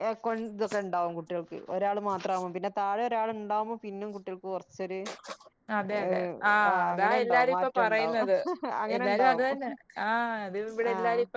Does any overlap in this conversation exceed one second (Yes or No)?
Yes